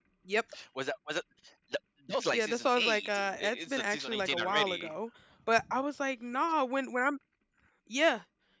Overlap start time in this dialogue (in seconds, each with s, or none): 2.3 s